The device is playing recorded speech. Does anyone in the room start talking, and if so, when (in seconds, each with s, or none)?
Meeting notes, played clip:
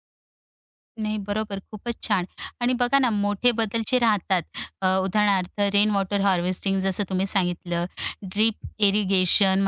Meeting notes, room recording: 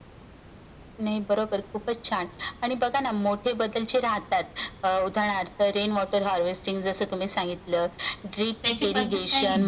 8.6 s